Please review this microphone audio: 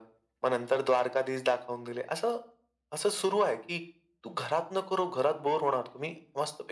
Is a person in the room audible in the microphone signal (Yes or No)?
No